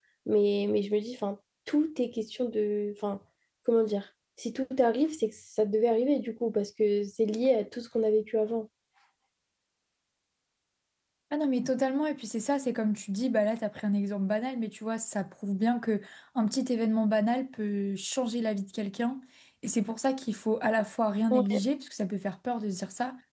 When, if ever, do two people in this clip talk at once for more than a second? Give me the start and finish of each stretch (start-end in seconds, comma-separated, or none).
none